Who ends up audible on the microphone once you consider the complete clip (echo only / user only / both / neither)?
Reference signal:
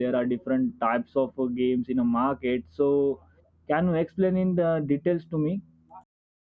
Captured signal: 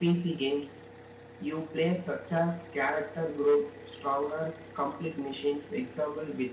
user only